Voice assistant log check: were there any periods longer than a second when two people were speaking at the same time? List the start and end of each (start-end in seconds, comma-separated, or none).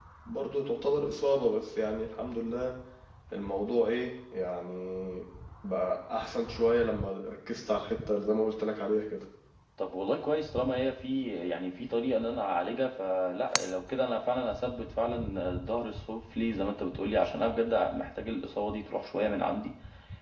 none